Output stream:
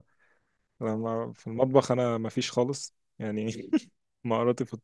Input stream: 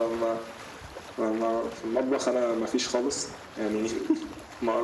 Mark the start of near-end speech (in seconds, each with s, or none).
none